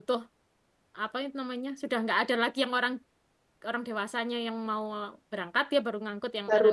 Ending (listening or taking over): taking over